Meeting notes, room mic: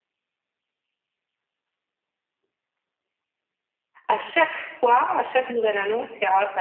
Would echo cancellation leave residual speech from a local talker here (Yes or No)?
Yes